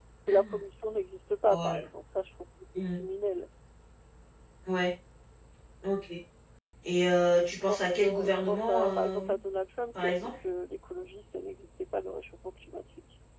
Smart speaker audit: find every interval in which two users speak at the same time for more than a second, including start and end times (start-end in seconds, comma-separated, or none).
7.7-9.4